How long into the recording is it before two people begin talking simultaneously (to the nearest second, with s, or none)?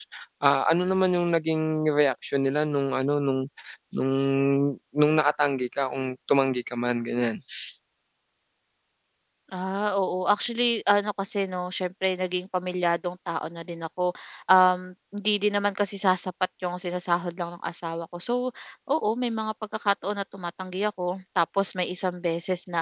none